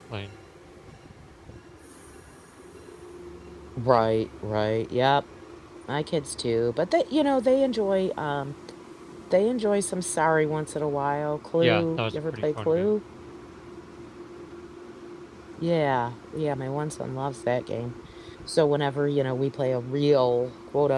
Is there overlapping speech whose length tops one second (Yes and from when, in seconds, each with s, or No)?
Yes, from 11.6 s